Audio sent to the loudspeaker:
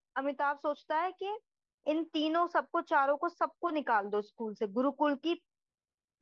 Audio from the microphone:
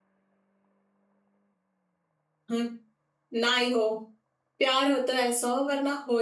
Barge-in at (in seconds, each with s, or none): 2.5 s